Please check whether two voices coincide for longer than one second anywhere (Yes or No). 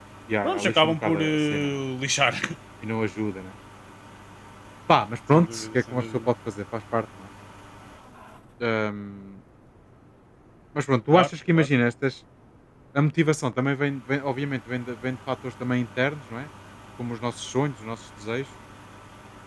Yes